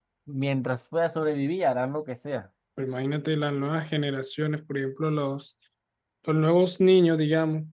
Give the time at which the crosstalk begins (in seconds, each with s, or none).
none